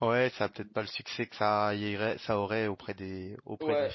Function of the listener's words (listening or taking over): taking over